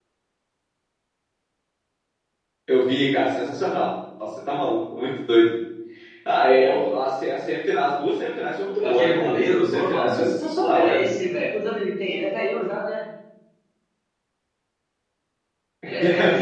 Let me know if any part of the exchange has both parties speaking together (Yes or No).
Yes